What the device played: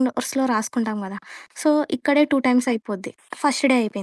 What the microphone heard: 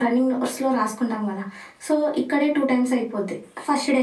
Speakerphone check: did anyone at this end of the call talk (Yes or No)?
No